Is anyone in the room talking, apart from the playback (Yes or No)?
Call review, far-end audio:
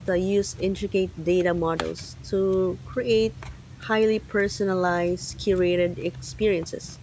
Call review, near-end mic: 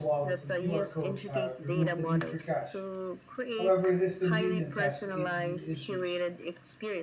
Yes